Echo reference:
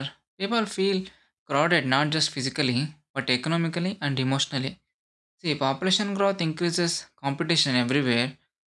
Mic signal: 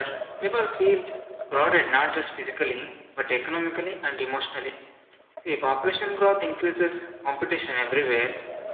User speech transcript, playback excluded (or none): none